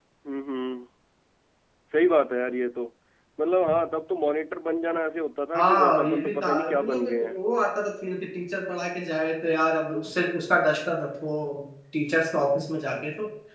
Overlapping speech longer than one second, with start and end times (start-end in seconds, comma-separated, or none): 5.6-7.4